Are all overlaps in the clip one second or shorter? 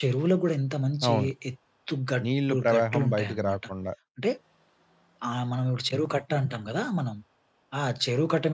No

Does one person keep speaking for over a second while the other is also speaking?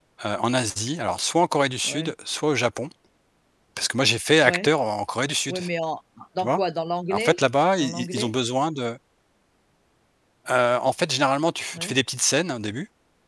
No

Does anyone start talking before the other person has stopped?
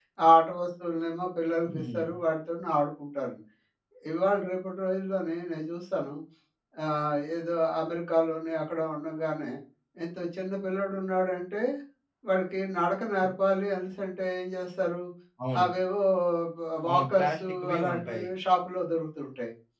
Yes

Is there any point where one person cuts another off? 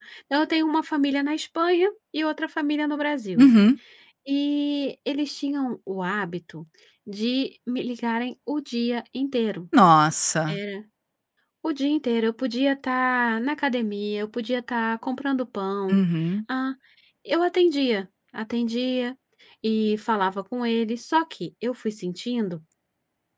No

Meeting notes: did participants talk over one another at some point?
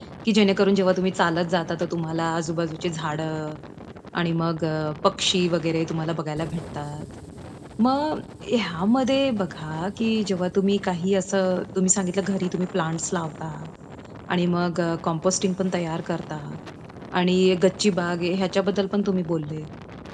No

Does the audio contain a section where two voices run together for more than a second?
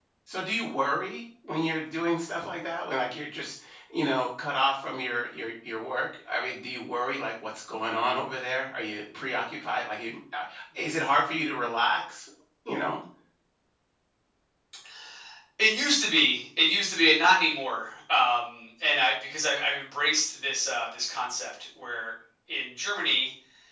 No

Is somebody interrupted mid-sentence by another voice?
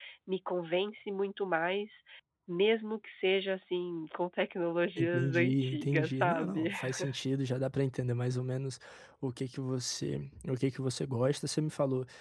Yes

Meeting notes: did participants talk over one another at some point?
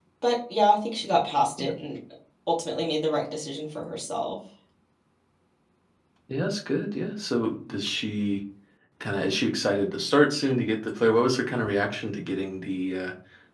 No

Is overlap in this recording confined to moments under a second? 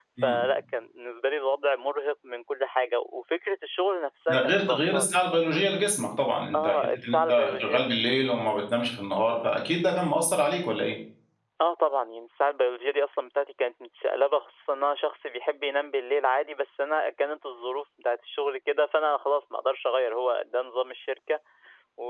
No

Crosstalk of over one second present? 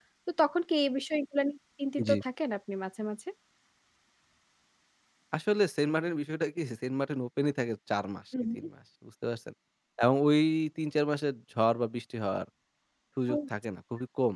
No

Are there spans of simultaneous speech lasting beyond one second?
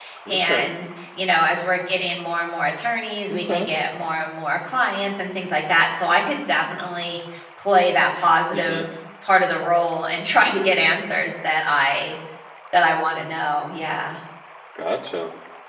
No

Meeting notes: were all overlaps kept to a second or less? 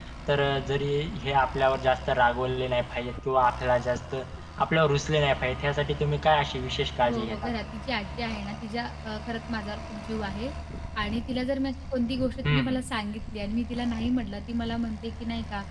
Yes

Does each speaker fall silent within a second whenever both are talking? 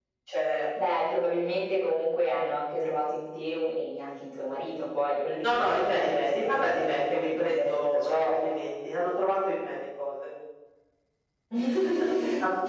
No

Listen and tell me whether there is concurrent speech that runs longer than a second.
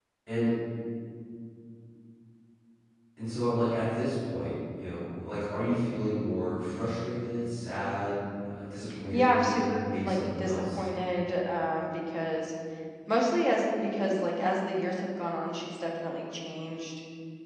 Yes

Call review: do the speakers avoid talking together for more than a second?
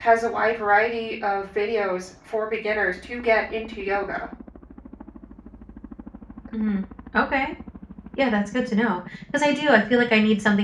Yes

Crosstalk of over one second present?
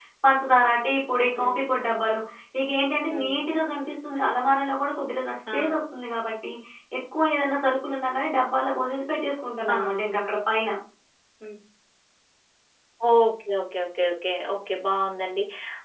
No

